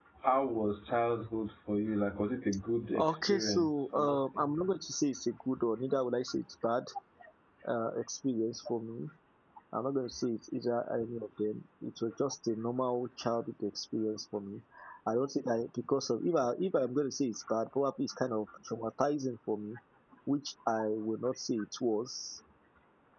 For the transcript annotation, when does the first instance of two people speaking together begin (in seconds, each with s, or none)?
3.0 s